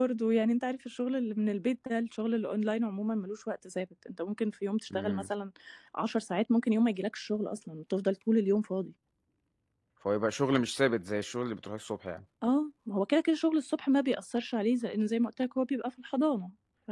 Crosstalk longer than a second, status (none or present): none